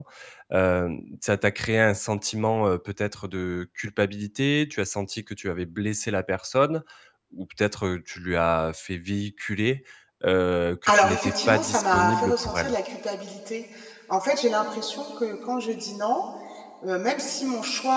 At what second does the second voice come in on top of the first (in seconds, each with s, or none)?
10.9 s